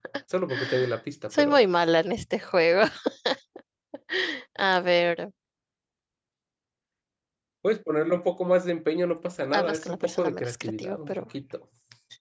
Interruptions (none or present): present